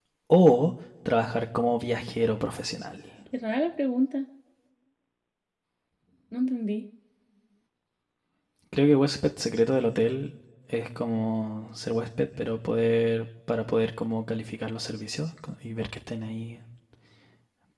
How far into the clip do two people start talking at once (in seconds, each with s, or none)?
none